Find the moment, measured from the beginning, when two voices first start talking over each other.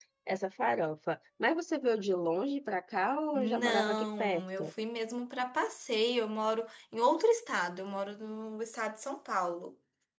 3.3 s

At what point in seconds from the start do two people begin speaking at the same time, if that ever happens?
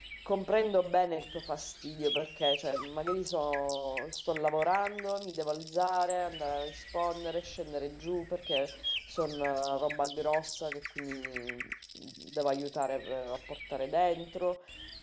none

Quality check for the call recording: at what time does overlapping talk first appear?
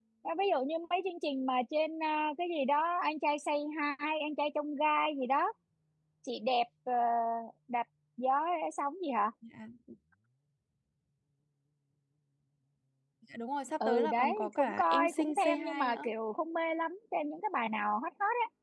13.8 s

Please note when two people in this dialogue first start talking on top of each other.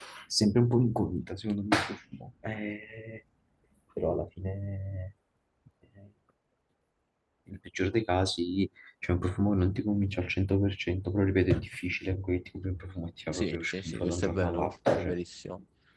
13.3 s

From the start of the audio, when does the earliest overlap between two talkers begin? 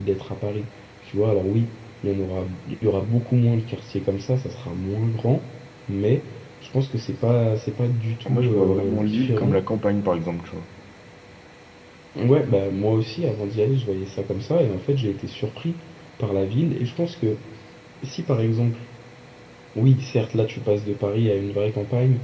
8.3 s

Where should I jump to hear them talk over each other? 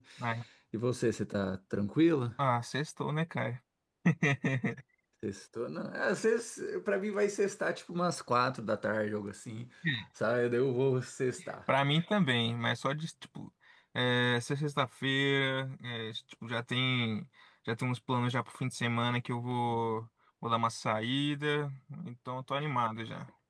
none

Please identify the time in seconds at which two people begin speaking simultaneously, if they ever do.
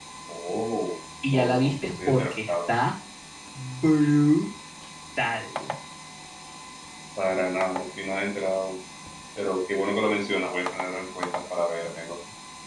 1.3 s

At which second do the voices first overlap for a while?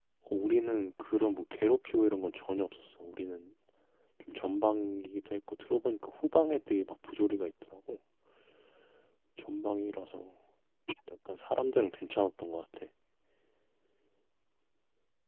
none

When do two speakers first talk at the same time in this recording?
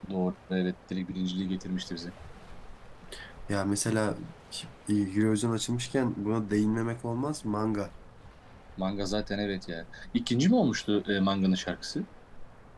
none

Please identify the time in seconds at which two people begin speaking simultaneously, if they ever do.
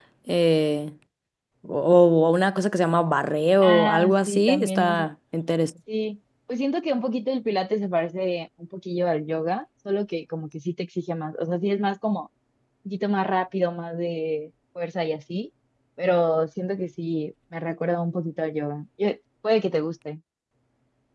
3.6 s

